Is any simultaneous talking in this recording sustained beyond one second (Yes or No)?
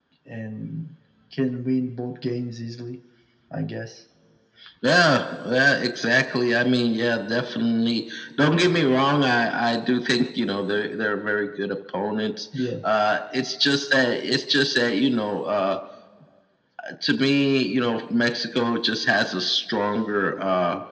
No